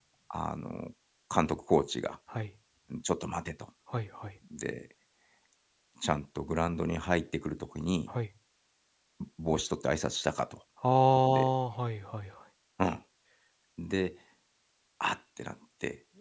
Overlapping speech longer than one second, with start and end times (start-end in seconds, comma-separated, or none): none